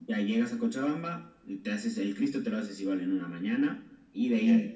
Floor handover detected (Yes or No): No